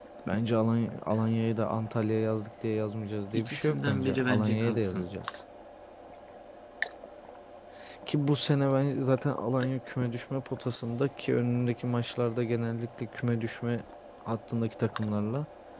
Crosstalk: present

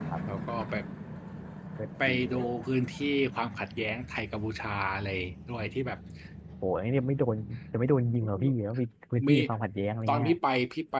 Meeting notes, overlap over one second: none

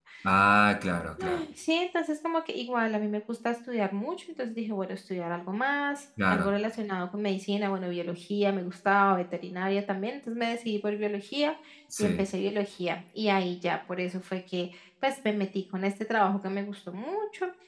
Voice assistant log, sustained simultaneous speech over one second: none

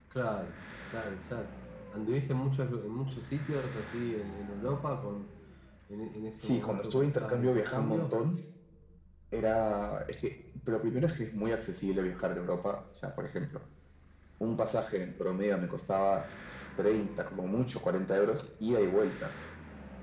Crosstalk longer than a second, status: present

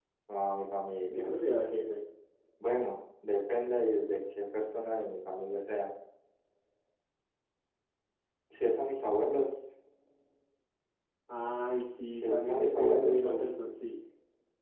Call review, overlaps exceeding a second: present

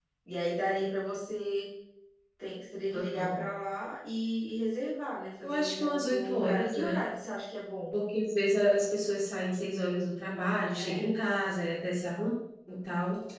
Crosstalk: present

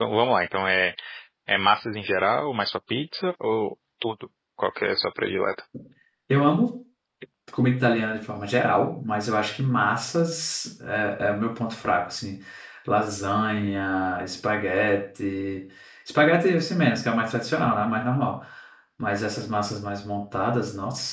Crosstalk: none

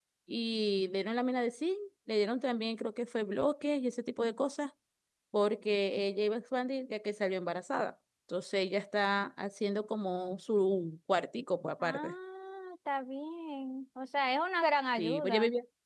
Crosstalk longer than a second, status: none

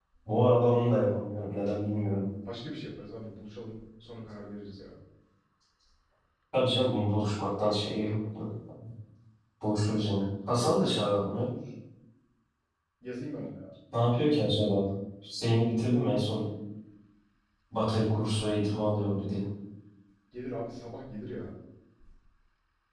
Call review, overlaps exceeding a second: none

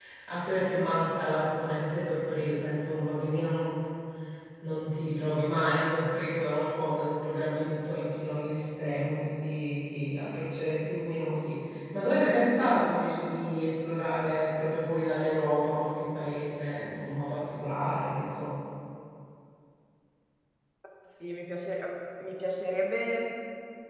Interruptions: none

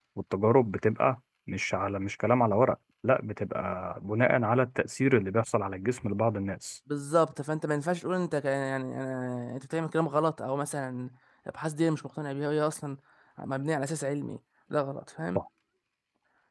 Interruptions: none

